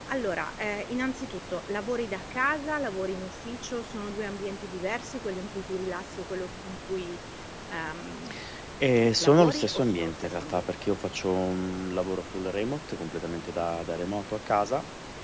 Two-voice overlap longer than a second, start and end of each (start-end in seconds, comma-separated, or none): 9.2-10.7